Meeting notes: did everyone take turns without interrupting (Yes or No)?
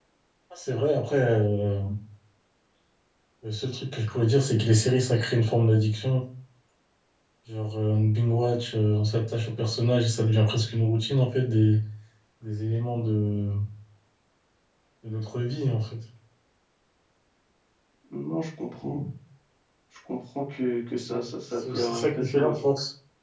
No